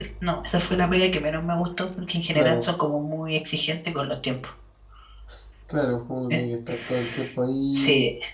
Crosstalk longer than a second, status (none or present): none